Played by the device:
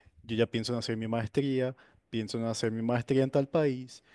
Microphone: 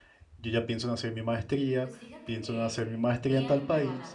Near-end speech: present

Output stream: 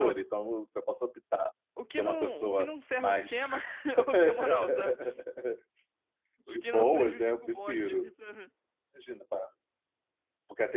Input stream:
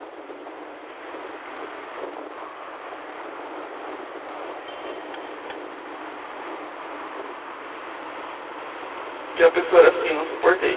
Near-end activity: present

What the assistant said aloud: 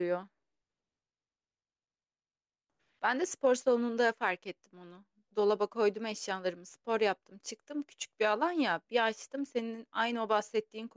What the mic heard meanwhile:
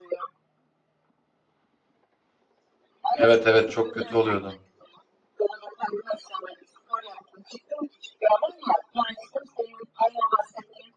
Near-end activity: present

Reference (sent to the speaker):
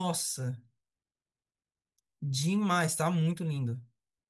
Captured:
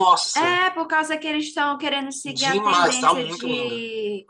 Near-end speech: present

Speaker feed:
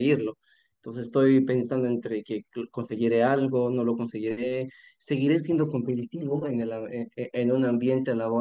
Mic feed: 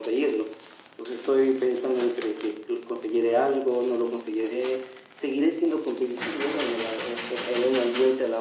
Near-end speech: none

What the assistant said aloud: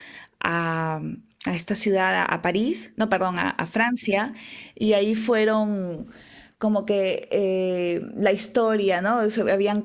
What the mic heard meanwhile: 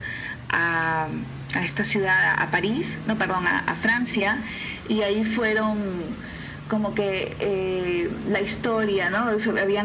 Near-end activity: none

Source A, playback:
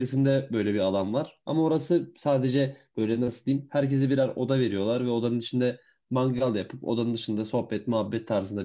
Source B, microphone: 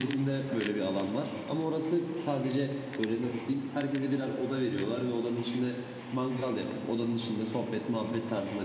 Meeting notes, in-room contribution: none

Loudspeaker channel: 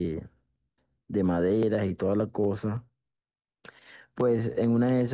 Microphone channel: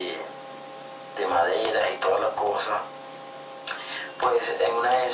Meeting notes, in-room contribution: none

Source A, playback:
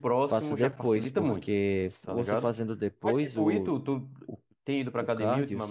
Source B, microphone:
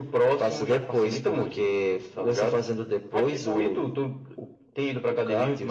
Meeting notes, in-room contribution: none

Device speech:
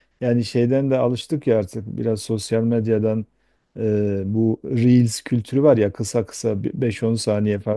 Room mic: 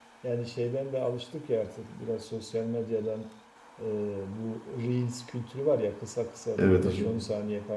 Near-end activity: present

